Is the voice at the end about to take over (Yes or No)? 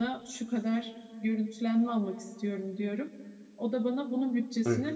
No